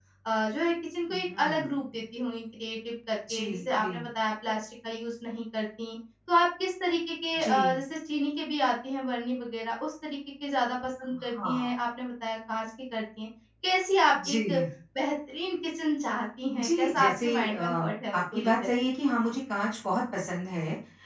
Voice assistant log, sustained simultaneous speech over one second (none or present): present